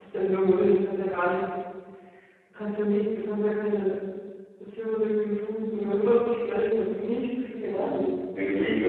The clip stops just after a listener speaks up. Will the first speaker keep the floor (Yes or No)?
No